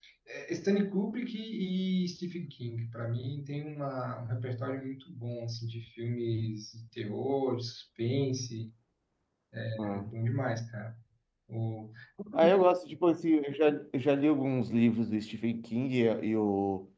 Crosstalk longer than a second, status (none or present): none